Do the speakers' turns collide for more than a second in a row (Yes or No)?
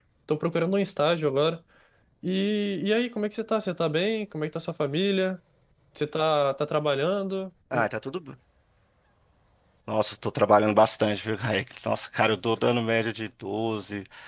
No